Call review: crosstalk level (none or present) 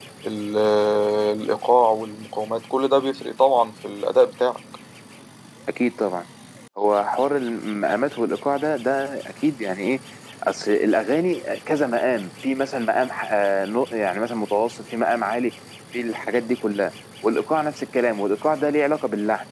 none